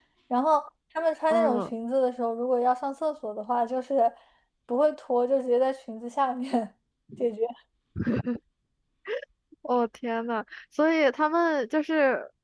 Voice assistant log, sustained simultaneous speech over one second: none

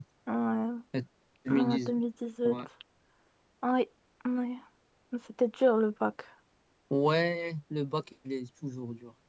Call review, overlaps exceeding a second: none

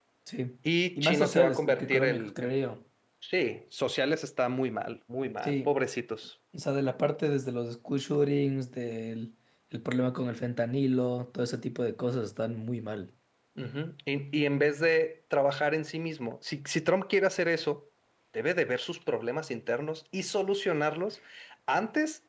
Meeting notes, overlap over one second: present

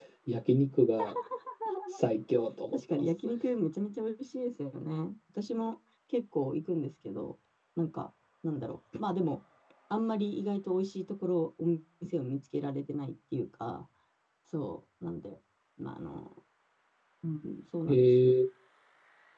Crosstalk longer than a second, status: none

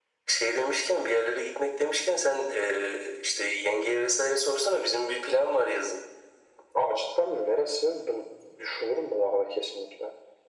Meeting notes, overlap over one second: none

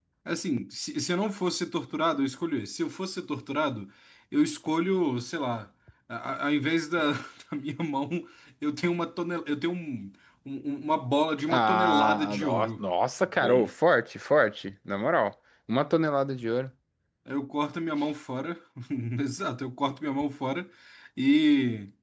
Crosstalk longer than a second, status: present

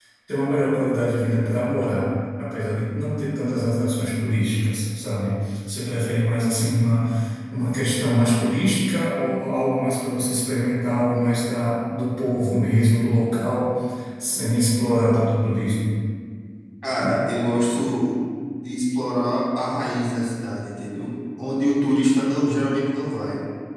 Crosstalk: none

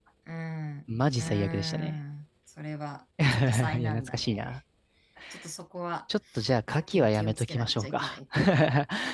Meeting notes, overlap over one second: present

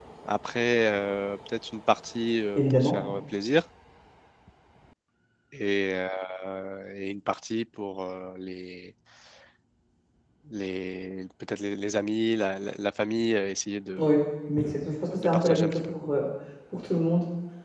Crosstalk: present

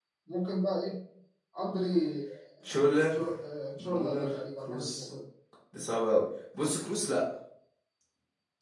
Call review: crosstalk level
present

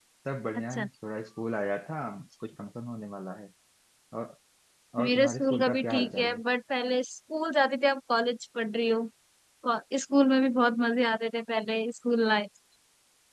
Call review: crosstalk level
present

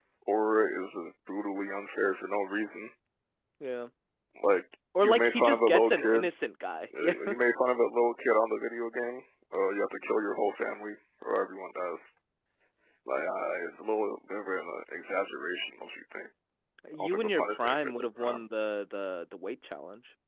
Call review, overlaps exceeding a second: present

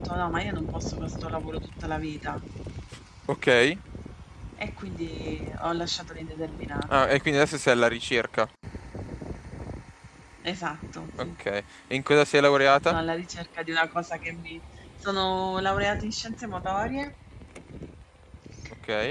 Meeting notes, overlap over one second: none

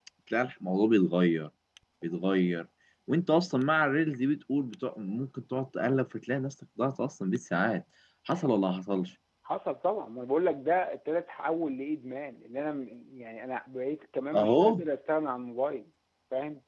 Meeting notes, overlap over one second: none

